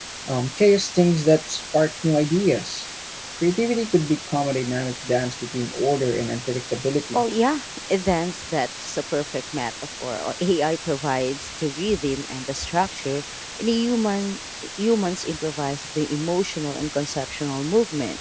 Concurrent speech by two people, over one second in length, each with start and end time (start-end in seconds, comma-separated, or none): none